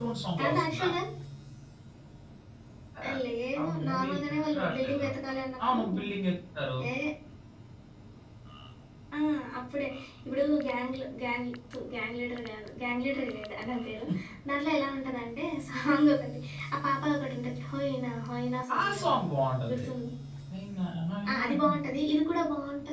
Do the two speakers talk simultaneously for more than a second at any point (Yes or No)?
Yes